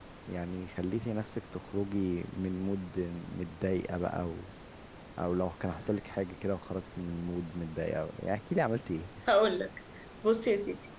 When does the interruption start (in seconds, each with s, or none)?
none